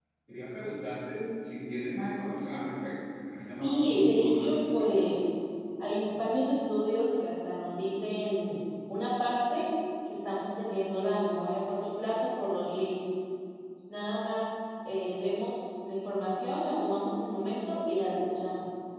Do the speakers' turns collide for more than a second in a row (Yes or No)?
Yes